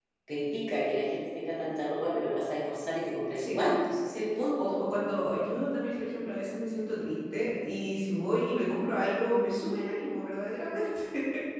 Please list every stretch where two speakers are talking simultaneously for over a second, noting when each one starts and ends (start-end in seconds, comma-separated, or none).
none